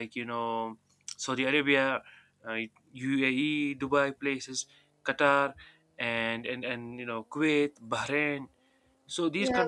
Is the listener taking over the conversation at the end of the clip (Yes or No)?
Yes